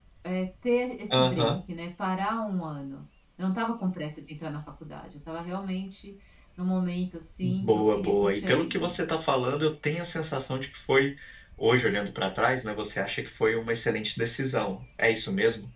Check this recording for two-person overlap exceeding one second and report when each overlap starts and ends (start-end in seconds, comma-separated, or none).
7.4-8.9